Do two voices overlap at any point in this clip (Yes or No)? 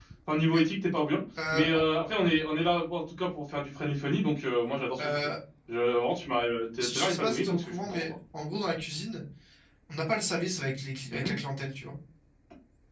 Yes